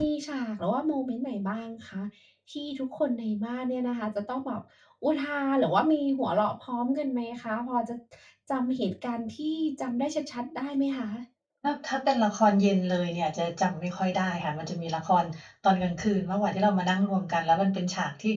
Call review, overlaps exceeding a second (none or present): none